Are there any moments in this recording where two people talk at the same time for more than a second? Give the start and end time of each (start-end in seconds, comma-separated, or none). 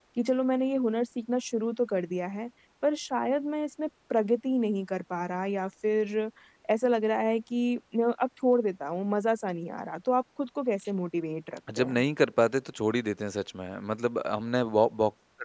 none